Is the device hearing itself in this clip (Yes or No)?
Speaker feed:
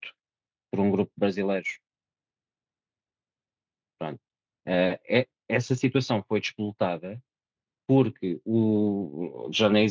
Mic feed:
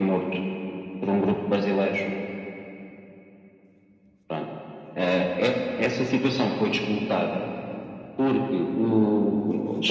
Yes